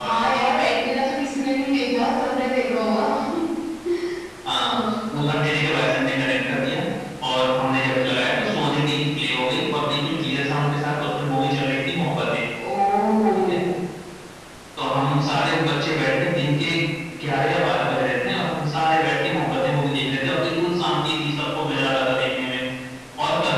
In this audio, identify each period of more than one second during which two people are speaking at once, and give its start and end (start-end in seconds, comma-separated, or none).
none